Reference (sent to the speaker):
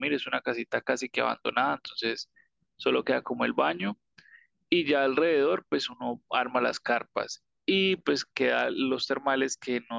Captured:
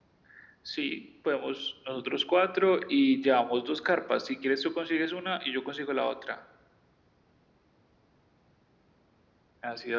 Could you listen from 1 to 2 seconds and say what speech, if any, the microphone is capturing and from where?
user only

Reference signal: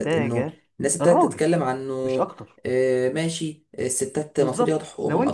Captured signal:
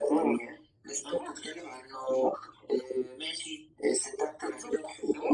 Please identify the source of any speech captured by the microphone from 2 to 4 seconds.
echo only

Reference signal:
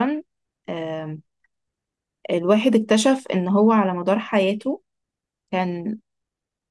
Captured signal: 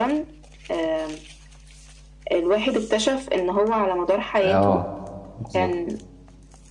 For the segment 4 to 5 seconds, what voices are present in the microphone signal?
both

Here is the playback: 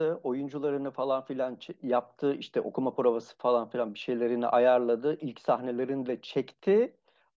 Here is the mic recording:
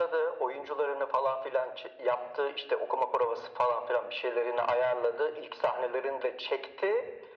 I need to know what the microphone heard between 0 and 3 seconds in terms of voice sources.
echo only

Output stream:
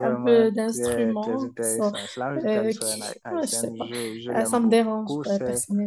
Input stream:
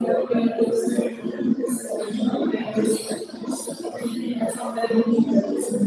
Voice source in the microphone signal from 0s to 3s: echo only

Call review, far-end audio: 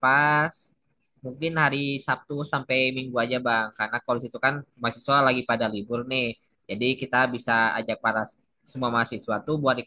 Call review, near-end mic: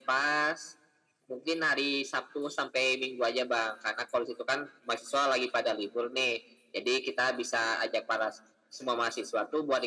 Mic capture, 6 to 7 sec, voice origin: echo only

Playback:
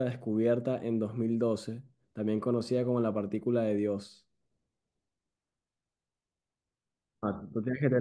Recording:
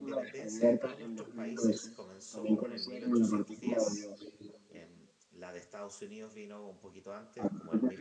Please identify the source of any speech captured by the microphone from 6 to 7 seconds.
user only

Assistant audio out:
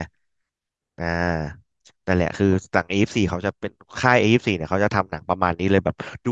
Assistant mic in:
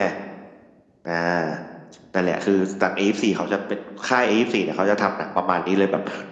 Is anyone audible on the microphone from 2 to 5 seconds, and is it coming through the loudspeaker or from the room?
echo only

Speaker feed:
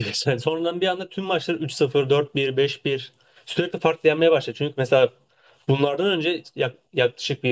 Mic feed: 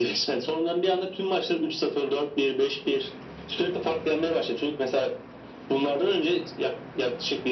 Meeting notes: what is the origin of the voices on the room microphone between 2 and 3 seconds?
echo only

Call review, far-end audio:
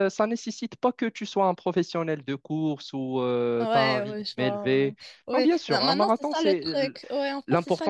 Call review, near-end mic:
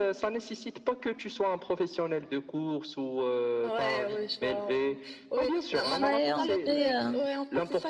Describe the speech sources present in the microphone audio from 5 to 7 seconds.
both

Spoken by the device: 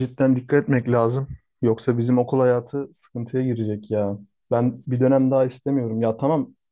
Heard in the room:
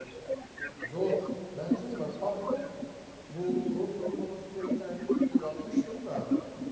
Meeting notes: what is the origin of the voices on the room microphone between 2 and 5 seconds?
both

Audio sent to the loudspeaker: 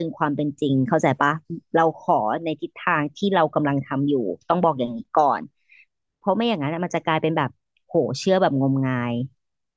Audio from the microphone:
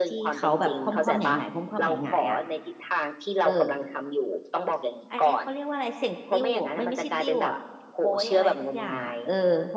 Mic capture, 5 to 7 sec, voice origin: both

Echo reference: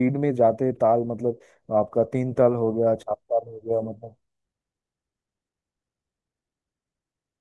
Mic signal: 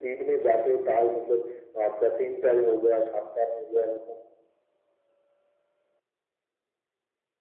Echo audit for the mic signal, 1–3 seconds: echo only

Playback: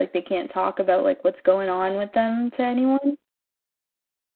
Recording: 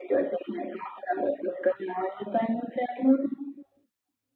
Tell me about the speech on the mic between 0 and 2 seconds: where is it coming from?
echo only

